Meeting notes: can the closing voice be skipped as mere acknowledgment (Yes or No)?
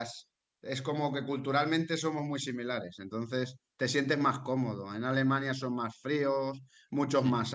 Yes